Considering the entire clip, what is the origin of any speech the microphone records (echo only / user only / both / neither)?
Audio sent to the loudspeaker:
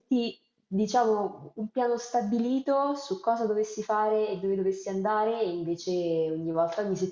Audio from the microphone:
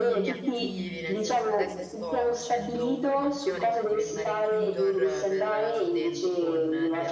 both